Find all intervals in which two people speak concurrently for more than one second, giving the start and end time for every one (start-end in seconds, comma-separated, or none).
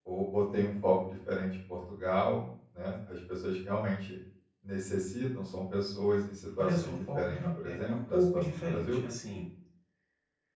6.6-9.0